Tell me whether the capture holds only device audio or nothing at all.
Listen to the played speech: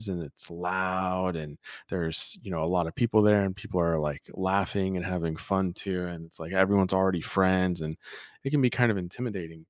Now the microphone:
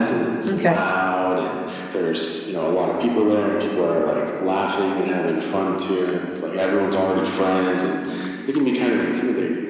No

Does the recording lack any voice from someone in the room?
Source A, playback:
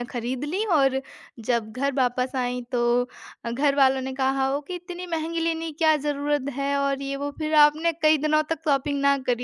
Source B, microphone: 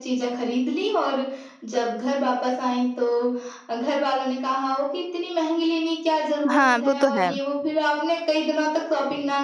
No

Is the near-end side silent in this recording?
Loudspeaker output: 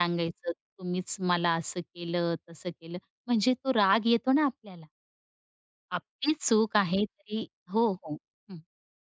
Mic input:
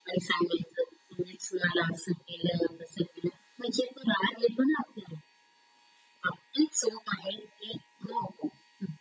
Yes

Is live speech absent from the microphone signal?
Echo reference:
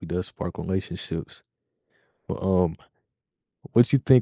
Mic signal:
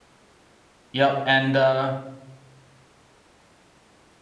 No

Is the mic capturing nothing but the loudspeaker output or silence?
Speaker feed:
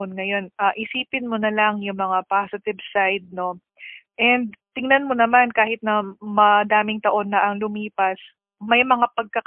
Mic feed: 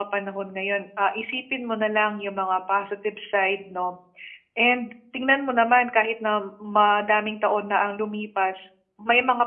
Yes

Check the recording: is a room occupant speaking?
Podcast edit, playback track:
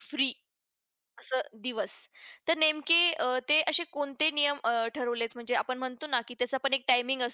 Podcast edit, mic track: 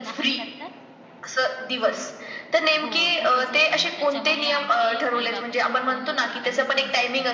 Yes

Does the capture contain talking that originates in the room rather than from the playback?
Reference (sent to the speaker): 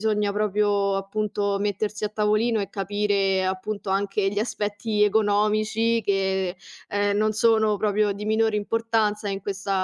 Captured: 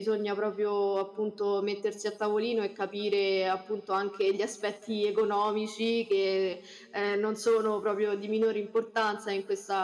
No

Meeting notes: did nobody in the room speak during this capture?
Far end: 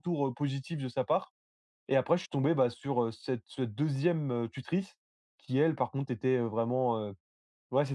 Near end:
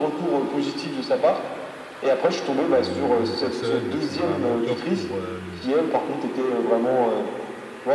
No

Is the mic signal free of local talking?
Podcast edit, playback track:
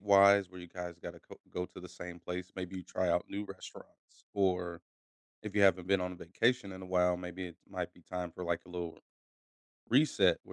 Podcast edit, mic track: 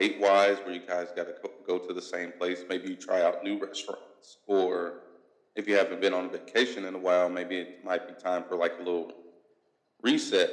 Yes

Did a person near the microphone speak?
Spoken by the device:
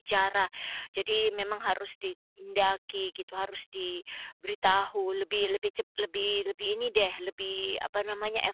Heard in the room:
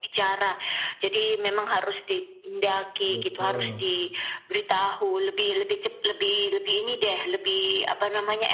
Yes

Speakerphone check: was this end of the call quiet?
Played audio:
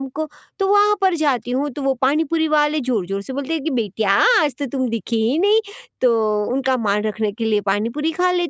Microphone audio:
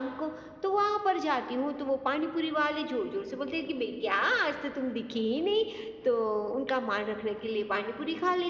Yes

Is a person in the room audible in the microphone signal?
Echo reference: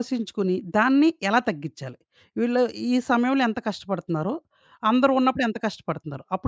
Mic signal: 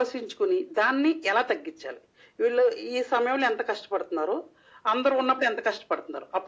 No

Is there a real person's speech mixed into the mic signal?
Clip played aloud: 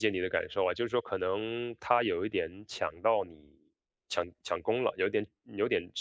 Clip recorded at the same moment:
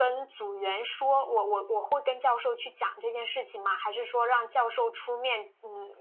Yes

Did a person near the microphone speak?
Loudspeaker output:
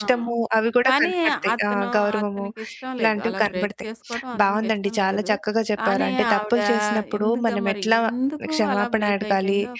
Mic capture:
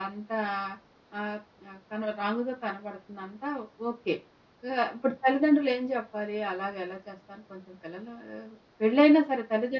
Yes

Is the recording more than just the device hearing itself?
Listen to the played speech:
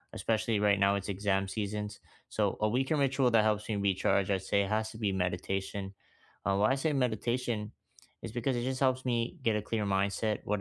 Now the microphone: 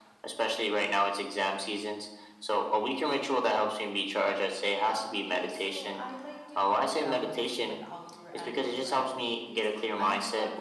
Yes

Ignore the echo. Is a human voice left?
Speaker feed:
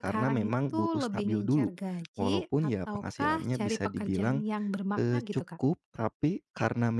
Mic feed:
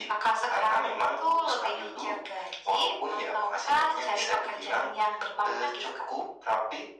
No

